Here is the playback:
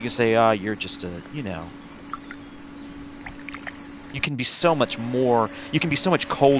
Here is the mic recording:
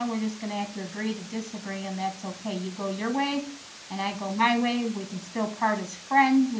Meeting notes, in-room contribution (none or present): present